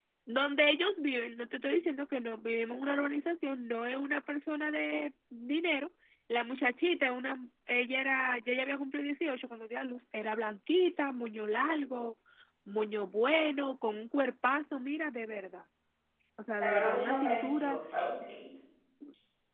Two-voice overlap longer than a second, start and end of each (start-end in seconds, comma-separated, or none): 16.6-17.8